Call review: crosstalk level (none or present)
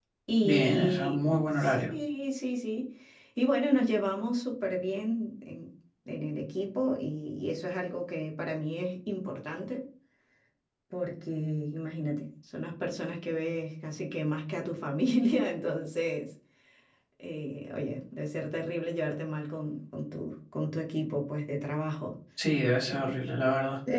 present